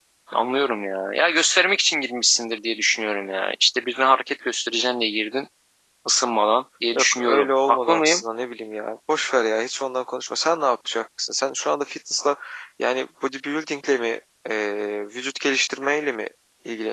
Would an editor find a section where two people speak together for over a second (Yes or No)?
Yes